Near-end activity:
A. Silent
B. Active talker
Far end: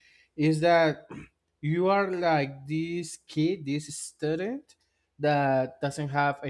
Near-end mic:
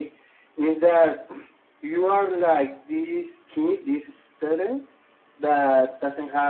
A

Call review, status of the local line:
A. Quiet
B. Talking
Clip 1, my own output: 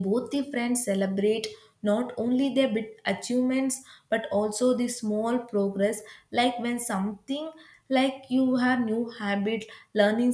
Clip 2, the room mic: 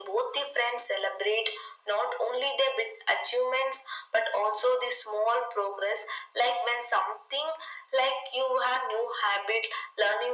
A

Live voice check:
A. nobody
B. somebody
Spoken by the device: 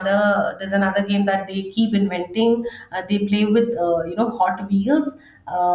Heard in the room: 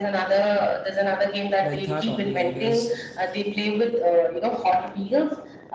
B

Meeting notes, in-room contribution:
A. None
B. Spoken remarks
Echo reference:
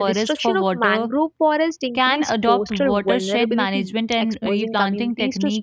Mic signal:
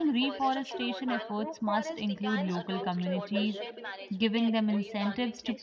B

